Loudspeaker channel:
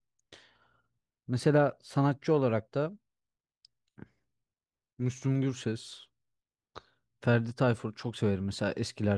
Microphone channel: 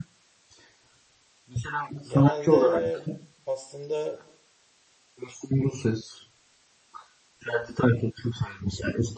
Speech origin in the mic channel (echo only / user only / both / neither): both